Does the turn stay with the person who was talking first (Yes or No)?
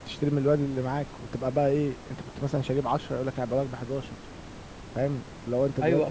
No